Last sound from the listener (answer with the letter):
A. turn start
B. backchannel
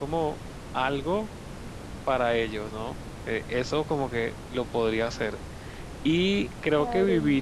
B